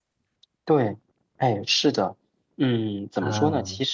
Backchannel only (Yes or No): Yes